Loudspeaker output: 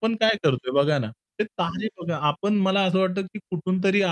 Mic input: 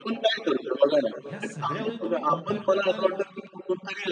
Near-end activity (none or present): present